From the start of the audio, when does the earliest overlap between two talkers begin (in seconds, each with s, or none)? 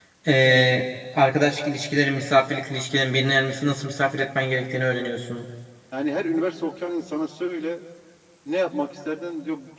none